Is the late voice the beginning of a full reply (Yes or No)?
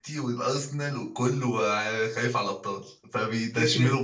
Yes